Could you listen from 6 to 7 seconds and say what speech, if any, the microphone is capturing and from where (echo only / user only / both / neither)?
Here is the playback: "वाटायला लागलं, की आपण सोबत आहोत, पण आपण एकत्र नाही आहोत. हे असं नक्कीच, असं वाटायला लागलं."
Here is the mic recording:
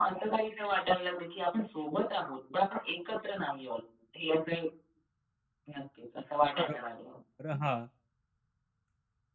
both